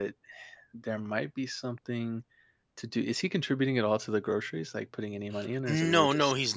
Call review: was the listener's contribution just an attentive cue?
No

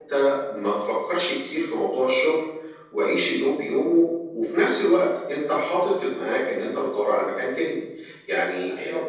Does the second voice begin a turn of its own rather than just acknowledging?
Yes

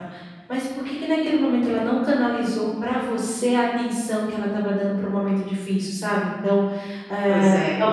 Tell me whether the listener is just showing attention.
Yes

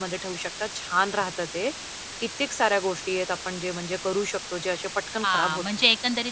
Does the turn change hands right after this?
Yes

